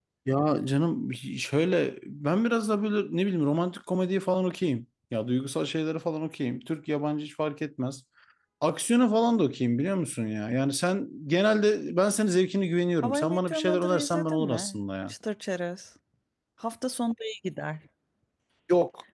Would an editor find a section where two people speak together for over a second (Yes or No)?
Yes